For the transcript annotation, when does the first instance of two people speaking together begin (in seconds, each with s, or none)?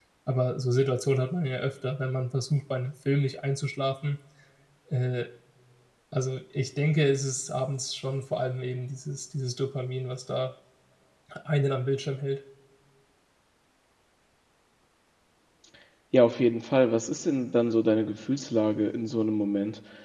none